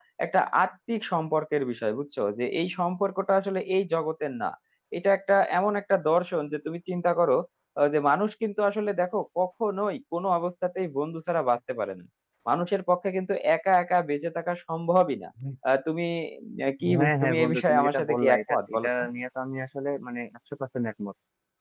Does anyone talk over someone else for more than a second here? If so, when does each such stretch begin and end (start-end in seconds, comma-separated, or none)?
17.0-18.9